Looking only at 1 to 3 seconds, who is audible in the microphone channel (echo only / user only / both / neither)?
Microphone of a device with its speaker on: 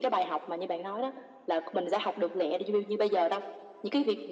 echo only